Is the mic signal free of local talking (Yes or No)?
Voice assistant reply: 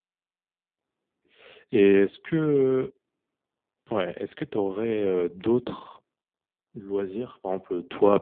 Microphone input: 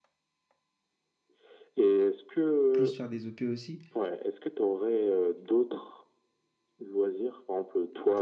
No